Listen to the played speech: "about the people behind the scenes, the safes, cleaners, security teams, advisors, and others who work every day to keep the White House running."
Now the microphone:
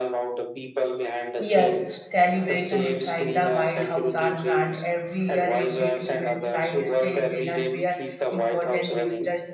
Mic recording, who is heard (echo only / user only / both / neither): both